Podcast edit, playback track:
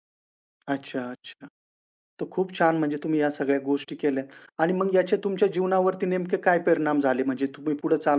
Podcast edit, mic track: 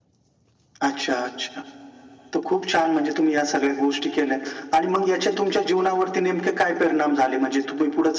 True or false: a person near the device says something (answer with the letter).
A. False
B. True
A